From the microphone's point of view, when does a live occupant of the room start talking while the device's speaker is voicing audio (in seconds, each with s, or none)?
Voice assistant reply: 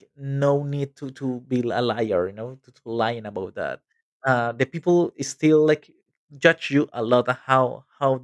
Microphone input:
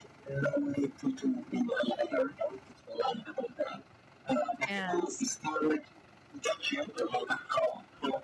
4.7 s